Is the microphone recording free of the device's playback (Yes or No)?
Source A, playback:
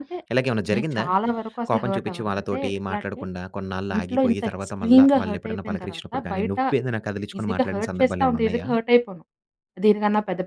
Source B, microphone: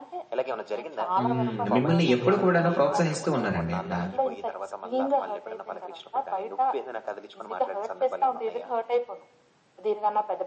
No